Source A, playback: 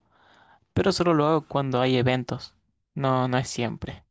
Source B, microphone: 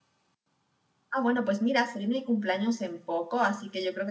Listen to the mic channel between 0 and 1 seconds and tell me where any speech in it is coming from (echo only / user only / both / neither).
neither